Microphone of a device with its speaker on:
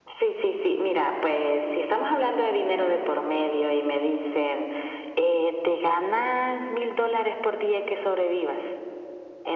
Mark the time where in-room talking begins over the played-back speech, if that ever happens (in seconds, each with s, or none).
none